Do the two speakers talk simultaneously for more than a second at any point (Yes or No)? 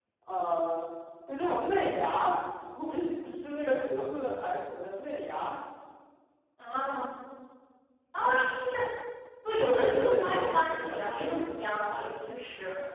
Yes